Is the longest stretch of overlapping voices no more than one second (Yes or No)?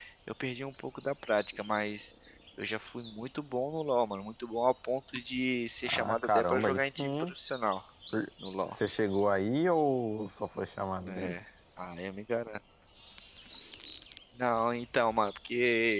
No